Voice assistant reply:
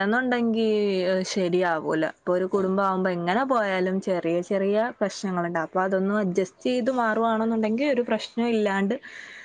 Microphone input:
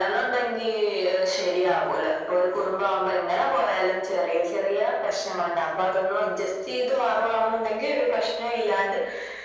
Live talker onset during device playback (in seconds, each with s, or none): none